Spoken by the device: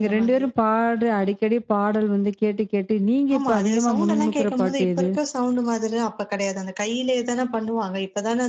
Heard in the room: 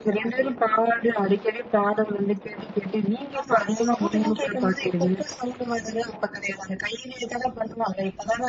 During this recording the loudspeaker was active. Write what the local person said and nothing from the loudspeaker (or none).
none